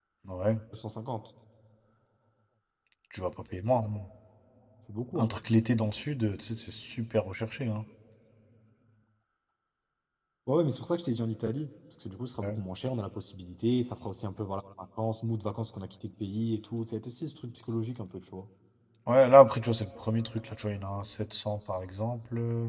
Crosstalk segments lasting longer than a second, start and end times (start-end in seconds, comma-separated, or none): none